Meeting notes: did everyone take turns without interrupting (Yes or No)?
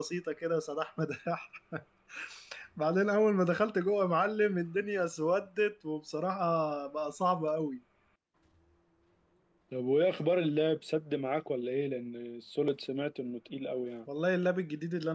Yes